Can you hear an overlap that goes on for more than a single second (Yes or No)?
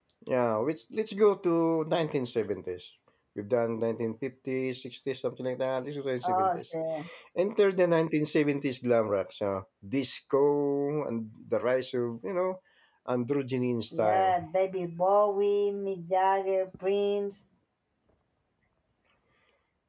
No